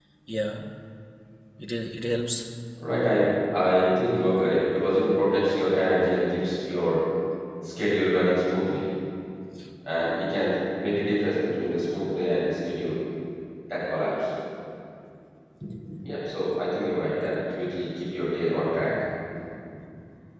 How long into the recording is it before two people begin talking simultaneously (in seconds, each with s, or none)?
none